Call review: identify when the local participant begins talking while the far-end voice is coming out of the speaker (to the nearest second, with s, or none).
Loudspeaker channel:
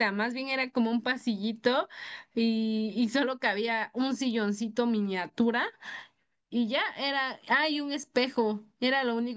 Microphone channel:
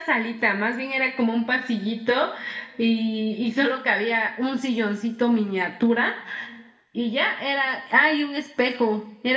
none